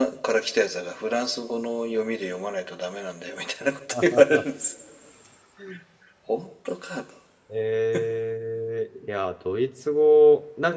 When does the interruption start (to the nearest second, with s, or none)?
none